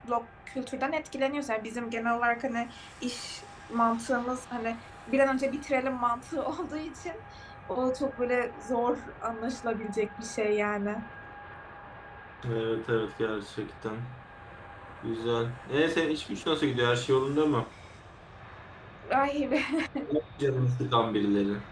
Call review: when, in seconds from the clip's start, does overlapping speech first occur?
none

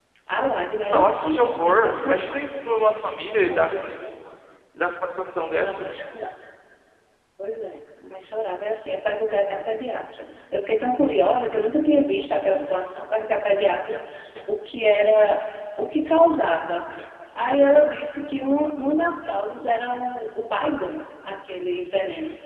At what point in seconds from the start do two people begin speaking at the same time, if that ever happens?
0.9 s

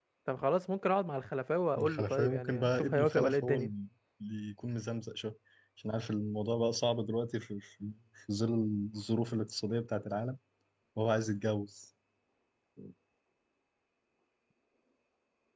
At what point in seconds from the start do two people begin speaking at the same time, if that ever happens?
1.7 s

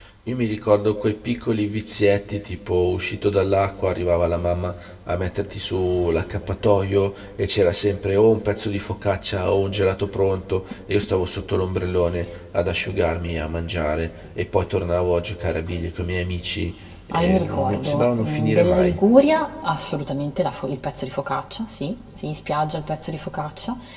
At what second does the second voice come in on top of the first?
17.1 s

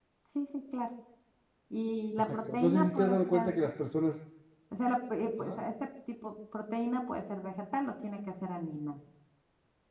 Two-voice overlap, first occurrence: 2.2 s

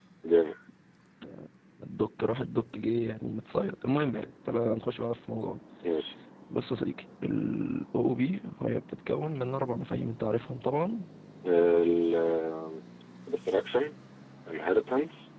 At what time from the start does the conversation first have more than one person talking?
none

